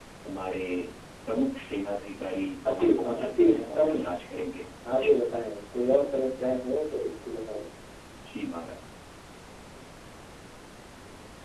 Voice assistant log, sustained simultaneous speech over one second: present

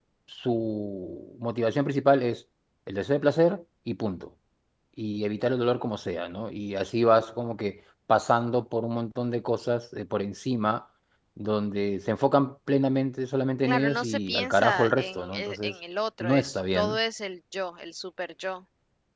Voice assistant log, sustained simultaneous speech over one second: present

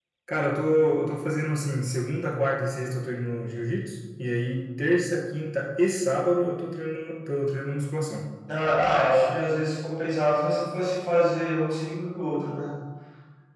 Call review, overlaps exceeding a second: none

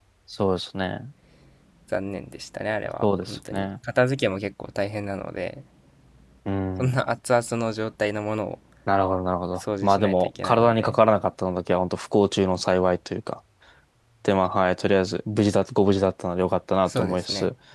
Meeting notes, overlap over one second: present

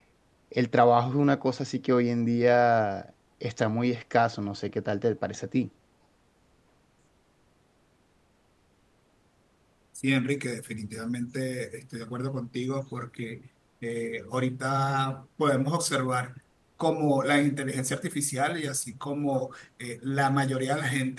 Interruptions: none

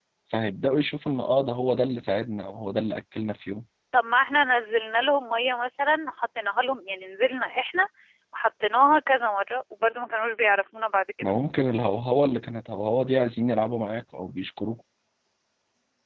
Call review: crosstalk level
none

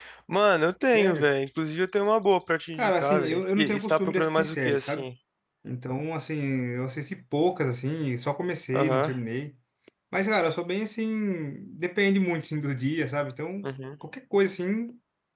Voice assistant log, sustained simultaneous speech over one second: present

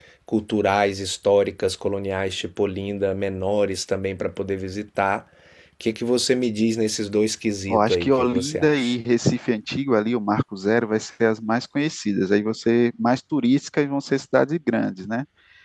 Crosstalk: present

